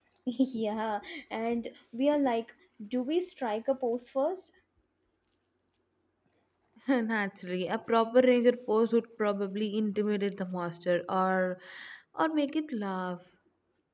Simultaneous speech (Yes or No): No